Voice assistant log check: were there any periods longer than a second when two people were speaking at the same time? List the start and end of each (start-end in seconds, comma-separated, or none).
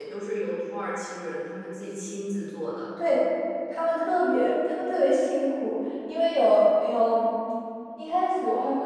none